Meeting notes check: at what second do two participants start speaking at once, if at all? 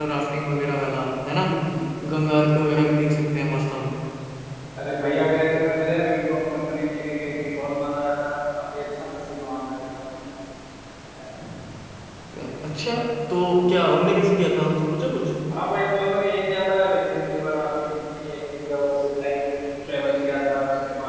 none

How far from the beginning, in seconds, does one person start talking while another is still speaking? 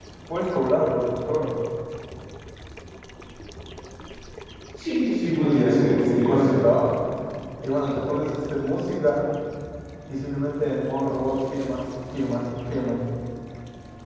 5.4 s

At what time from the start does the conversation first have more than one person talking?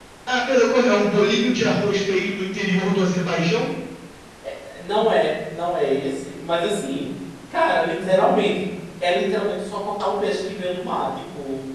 none

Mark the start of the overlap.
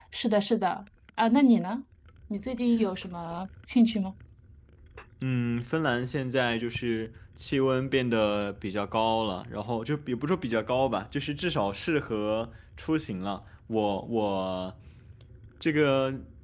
none

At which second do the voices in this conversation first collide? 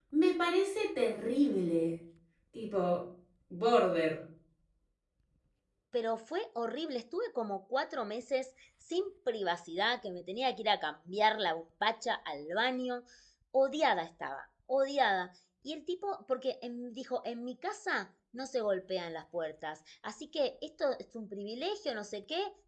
none

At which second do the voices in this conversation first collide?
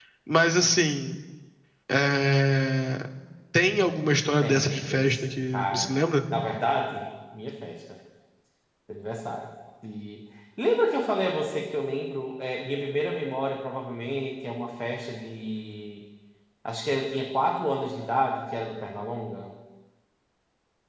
4.4 s

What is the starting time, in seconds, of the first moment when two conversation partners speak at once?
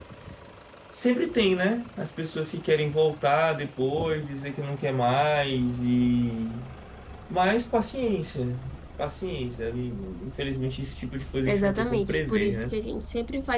11.5 s

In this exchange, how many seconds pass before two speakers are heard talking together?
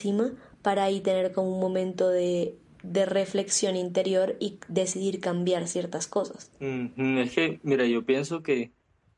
none

